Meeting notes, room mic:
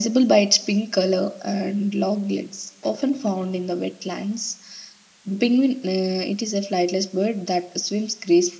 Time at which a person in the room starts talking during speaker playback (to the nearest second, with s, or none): none